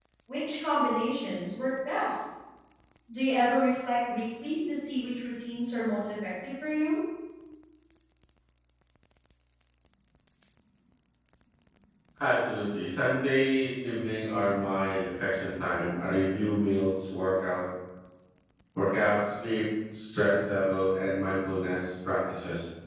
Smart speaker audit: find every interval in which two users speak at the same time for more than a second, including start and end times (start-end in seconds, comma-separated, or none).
none